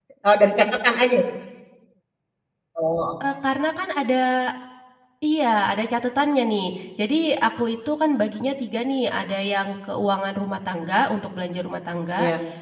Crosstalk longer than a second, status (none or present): none